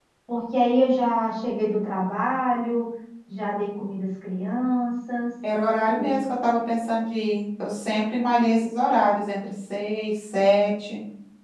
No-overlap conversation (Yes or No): Yes